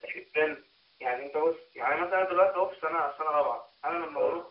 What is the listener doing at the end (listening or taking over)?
listening